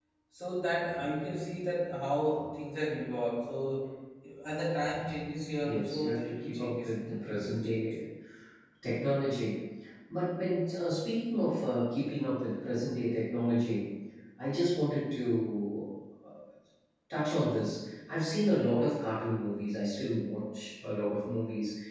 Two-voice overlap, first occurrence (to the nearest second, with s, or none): 6 s